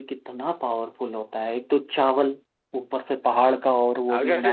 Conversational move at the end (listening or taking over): taking over